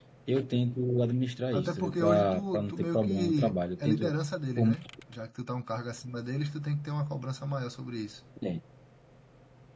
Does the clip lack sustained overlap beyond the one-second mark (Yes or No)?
No